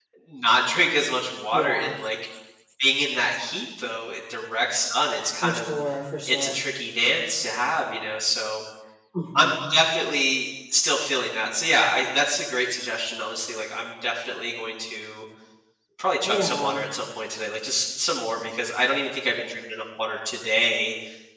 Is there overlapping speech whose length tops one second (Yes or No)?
No